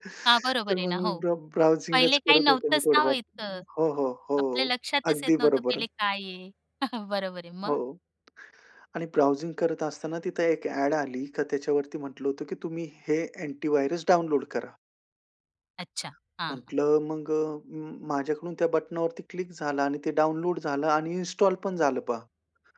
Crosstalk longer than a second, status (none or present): present